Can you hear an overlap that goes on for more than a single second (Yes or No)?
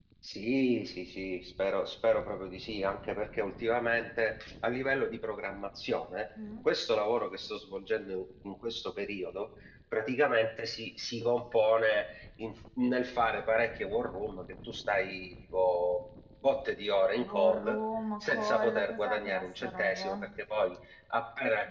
Yes